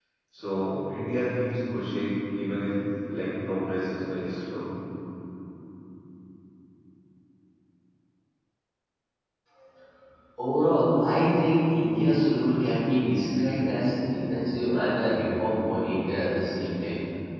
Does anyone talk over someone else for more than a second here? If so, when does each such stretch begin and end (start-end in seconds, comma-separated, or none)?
none